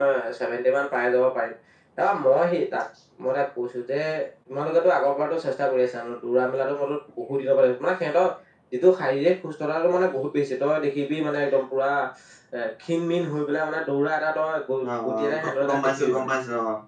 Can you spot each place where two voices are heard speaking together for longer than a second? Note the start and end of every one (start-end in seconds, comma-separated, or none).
15.1-16.3